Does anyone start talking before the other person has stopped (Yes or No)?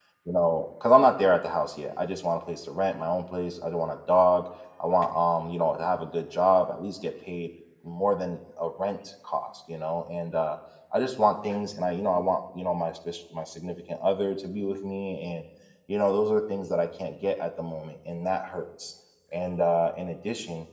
No